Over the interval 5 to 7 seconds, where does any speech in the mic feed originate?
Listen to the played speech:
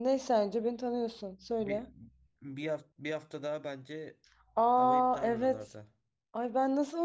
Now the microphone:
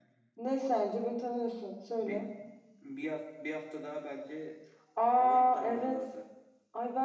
echo only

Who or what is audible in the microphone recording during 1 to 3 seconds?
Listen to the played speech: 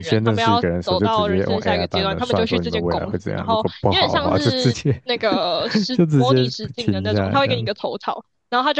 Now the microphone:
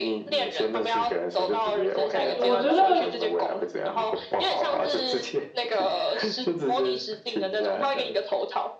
both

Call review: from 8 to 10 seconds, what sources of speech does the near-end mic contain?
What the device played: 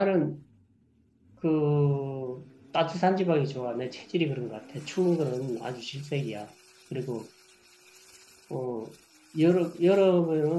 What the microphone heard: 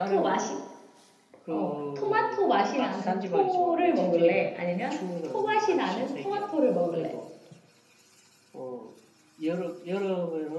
echo only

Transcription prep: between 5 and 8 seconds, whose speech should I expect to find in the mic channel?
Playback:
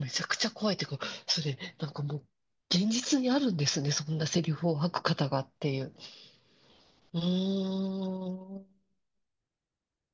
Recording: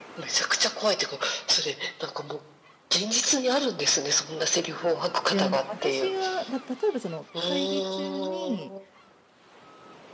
both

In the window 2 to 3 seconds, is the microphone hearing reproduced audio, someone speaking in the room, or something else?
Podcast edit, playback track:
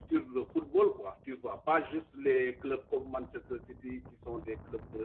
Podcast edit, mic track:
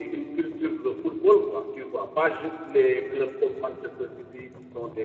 echo only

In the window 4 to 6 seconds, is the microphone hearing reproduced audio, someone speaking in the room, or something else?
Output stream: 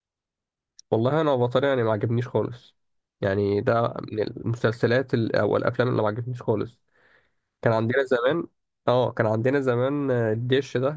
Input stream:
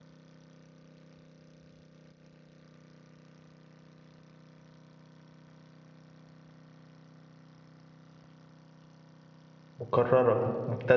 neither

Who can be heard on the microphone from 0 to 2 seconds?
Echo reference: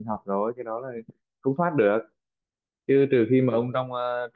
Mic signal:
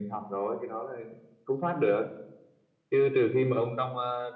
echo only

